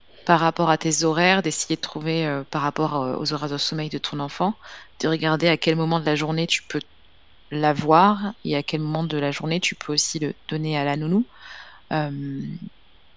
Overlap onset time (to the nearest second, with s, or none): none